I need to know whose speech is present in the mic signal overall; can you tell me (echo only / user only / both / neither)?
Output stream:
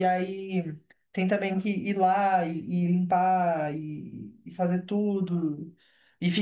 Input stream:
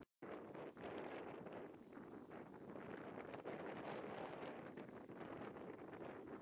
neither